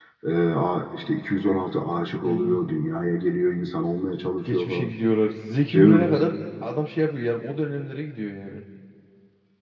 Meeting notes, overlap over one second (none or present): none